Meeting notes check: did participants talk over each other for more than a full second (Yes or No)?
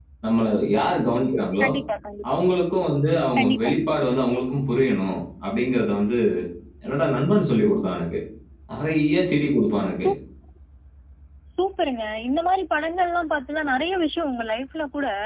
No